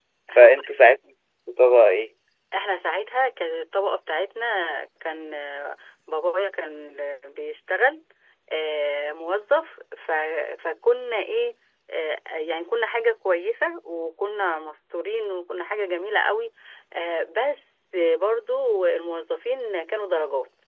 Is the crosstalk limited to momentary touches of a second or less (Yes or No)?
Yes